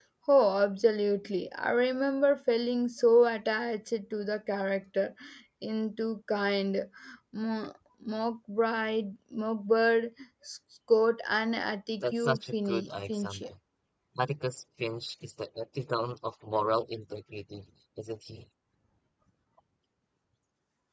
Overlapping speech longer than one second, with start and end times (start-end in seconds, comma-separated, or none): 12.0-13.4